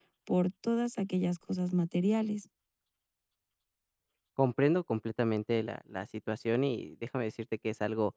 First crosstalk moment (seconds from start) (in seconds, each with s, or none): none